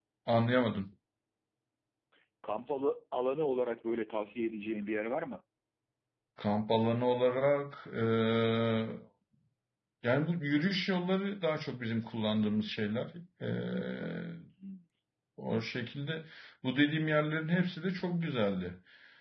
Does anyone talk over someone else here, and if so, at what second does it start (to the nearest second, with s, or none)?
none